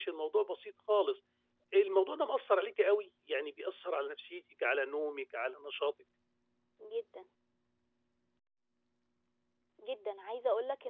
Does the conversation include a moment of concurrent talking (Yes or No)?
No